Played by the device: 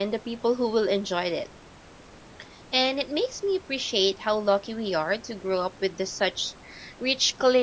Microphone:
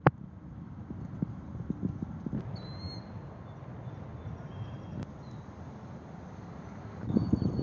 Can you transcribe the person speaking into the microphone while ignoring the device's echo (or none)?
none